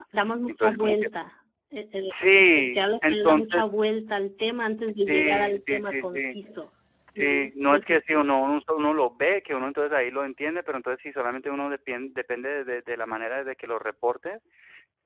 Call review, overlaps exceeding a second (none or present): present